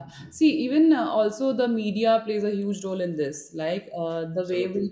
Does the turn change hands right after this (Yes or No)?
No